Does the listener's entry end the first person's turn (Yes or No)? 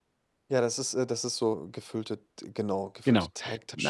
Yes